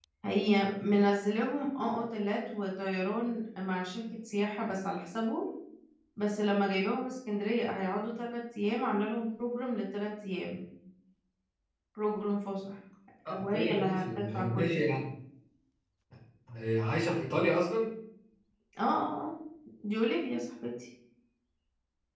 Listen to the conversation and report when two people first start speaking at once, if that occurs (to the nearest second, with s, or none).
13 s